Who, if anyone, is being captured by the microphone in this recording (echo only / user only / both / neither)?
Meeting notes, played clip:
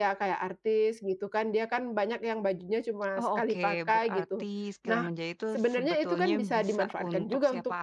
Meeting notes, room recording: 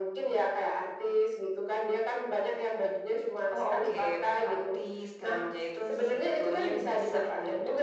echo only